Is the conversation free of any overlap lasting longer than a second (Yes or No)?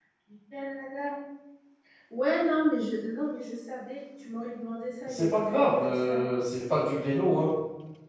No